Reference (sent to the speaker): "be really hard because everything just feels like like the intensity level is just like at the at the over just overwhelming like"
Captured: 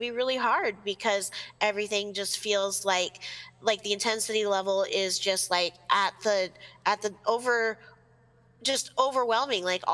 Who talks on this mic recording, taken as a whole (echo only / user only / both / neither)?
echo only